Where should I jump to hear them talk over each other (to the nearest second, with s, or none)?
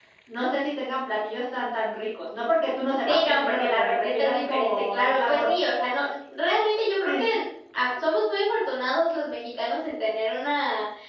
3 s